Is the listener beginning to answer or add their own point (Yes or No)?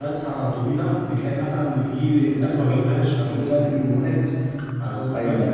No